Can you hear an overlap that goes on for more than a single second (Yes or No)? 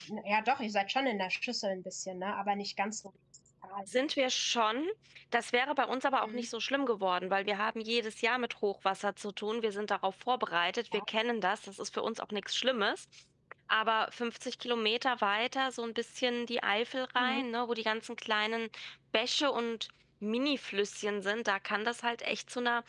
No